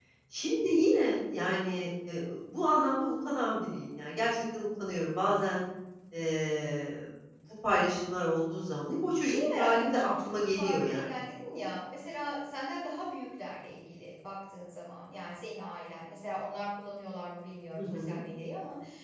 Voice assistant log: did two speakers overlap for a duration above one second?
Yes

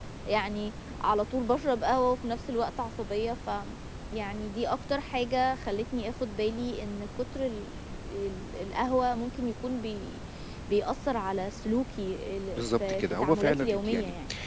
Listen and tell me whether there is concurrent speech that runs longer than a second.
Yes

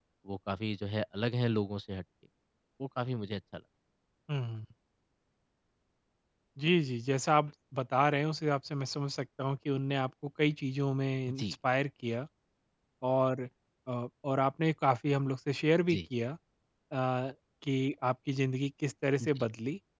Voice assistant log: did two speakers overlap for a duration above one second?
No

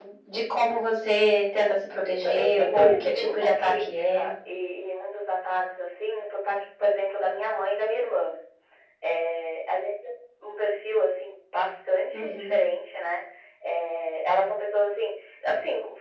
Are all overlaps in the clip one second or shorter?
No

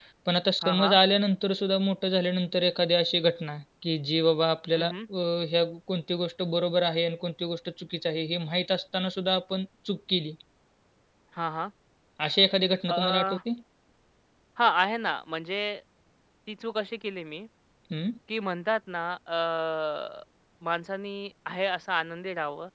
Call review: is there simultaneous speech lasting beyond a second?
No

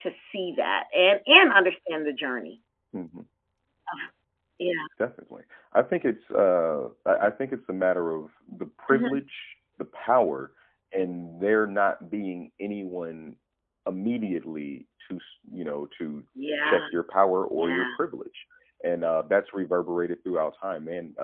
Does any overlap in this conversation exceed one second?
No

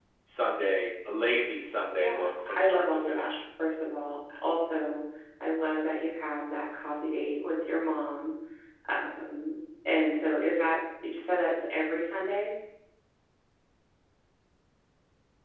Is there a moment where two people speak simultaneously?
Yes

